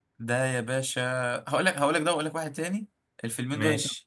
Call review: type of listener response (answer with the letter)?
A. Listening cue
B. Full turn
A